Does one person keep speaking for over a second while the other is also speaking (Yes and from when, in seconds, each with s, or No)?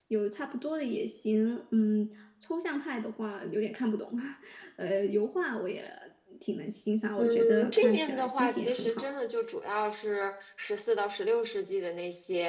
Yes, from 7.2 s